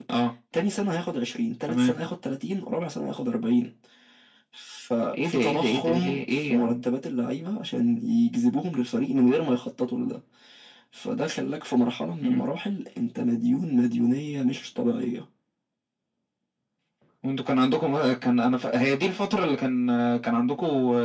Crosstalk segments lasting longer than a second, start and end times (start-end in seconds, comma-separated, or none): 5.2-6.8